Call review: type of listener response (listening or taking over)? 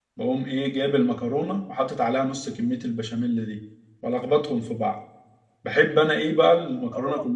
taking over